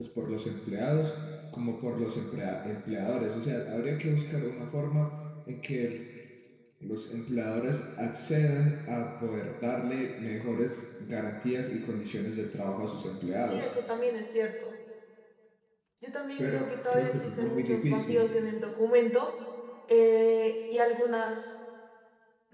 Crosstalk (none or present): present